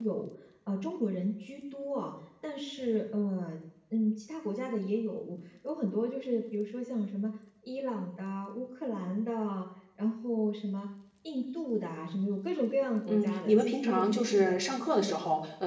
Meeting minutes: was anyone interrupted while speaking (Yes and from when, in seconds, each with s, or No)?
Yes, from 13.1 s